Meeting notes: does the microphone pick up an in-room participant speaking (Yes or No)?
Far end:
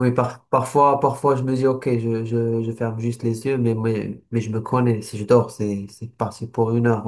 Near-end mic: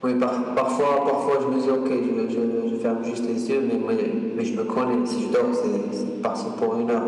No